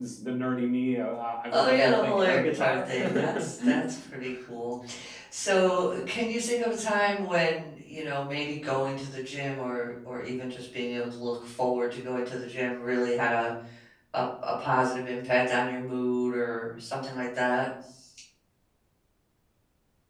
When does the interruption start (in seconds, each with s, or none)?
1.5 s